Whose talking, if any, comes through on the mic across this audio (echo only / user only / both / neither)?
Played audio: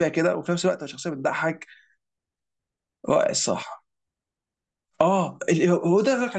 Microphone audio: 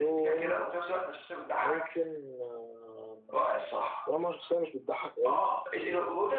both